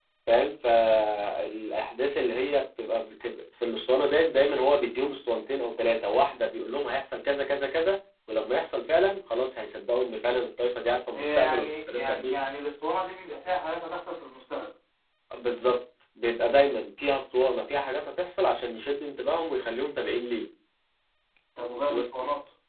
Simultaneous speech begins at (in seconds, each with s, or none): 11.1 s